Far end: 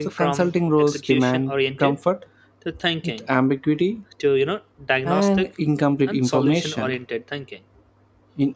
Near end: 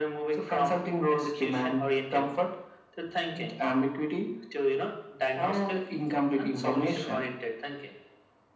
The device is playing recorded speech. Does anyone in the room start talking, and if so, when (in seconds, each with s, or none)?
none